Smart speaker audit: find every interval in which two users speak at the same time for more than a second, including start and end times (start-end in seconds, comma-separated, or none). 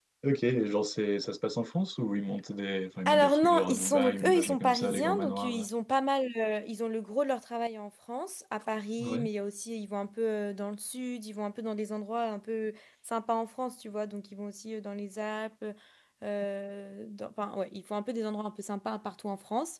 3.1-5.6